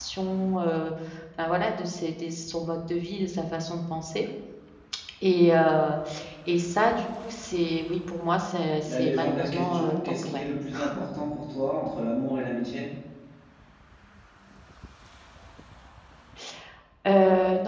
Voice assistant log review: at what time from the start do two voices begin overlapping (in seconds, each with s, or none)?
8.8 s